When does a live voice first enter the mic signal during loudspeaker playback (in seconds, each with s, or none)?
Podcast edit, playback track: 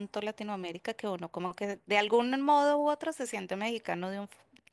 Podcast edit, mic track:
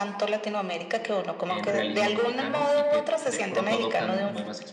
1.4 s